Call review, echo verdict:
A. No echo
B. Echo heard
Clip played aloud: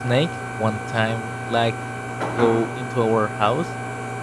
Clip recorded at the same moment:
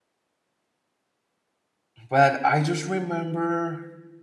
A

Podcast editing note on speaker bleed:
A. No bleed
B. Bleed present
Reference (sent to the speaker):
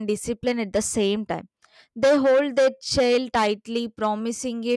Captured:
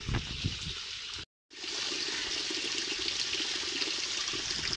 A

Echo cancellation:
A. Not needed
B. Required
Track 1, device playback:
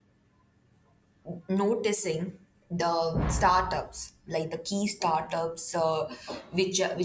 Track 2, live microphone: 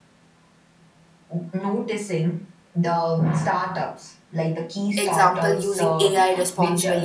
B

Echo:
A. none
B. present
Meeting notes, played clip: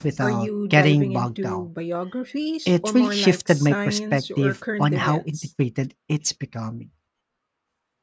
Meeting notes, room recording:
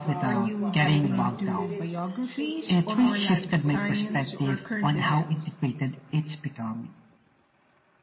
B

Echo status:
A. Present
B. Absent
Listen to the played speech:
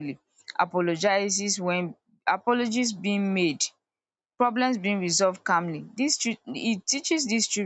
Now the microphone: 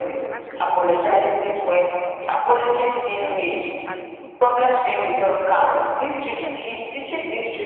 A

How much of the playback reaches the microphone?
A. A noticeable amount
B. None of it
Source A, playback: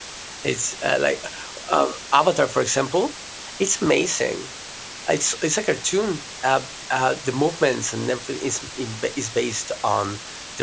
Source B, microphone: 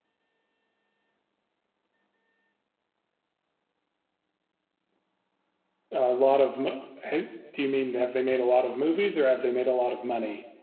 B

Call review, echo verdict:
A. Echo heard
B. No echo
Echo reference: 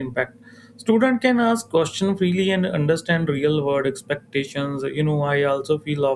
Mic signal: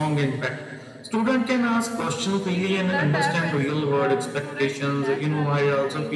A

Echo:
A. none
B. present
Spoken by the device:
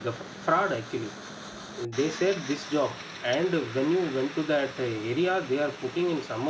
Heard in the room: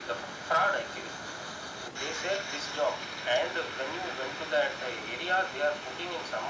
B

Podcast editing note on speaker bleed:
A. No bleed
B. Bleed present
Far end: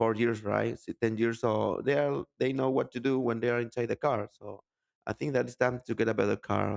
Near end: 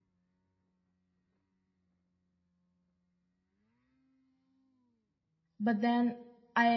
A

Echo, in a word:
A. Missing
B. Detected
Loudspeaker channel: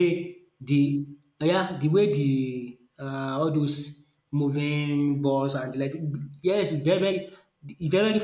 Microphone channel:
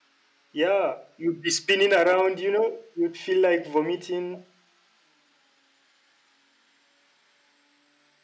A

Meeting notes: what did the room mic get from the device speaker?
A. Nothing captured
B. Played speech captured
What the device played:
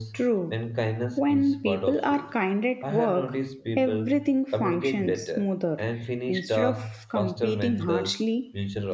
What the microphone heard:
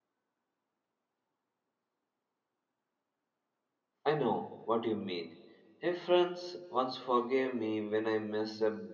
A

